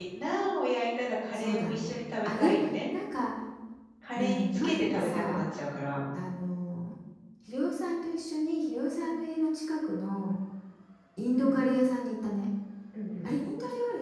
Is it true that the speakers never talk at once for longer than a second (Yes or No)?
No